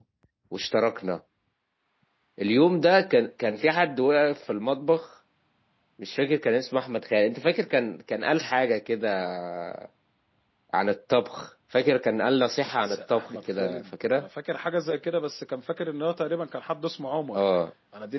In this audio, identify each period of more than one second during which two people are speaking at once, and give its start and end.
12.8-14.2

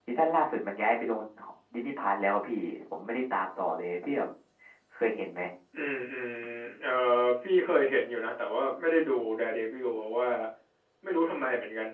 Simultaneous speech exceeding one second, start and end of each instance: none

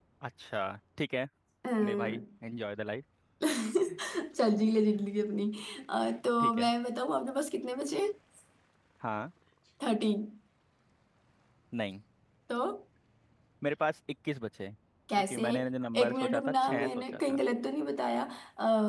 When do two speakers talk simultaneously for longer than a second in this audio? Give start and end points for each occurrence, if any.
16.0-17.4

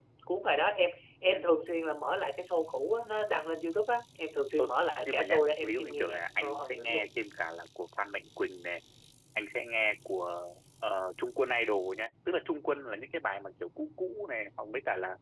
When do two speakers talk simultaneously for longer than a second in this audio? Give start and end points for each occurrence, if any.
5.0-7.1

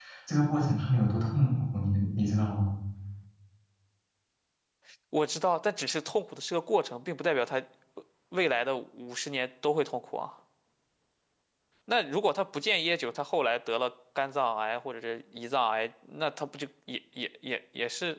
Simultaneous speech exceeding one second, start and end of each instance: none

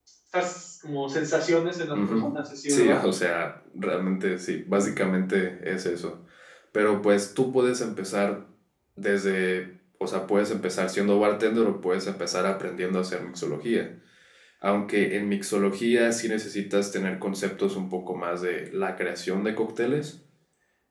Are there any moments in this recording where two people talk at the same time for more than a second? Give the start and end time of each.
none

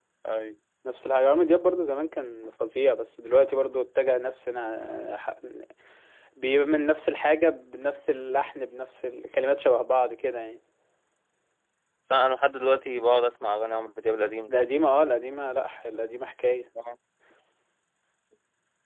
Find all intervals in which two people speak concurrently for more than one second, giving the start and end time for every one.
none

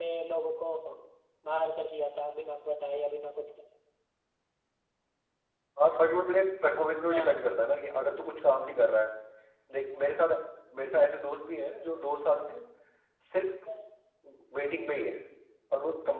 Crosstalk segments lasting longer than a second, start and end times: none

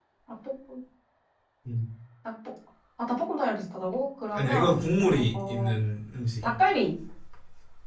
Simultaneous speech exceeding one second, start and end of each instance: 4.3-5.7

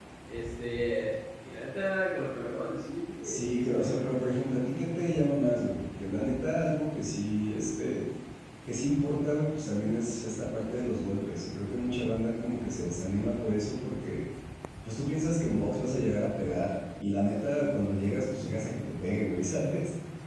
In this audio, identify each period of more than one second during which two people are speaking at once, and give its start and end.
3.2-4.6

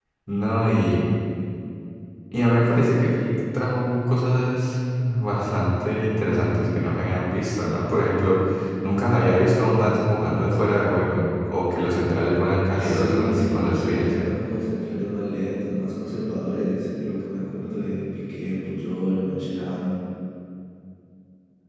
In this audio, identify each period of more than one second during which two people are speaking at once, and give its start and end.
12.8-14.1

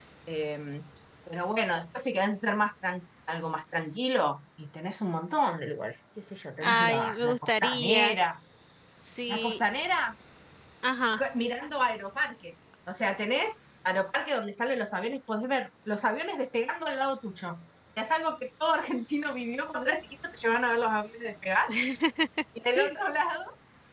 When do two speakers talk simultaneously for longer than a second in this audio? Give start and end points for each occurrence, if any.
6.6-8.2

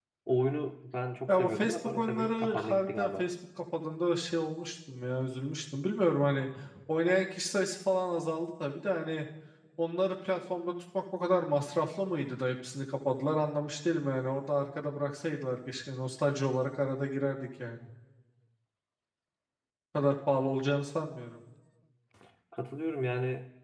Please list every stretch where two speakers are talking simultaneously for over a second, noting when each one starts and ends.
1.3-3.2

